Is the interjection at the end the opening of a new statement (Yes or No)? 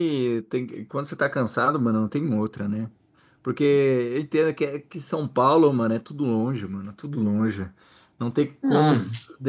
No